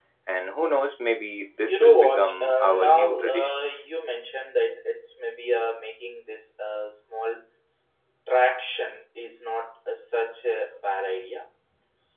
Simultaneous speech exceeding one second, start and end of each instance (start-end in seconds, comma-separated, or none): 1.7-3.5